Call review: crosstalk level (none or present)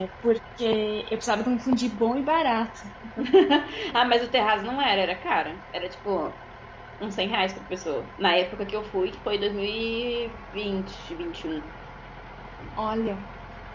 none